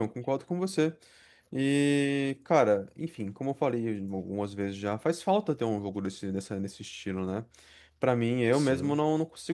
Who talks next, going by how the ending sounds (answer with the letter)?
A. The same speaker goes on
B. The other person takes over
A